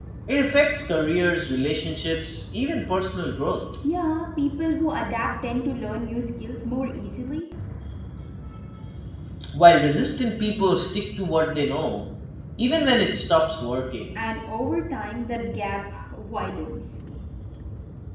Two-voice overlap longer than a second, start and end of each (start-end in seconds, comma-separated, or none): none